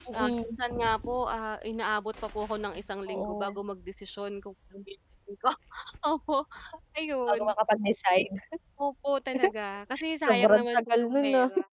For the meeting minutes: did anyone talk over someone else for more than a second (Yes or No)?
Yes